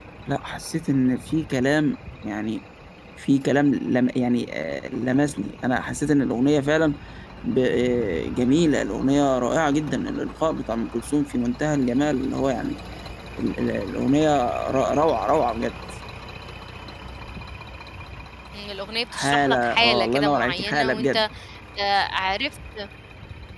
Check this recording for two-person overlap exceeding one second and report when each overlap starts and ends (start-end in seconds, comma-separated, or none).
19.1-21.2